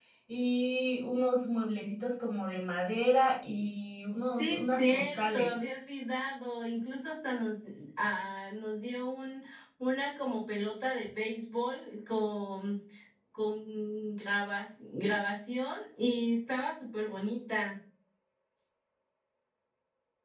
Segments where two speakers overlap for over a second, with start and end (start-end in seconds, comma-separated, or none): 4.2-5.5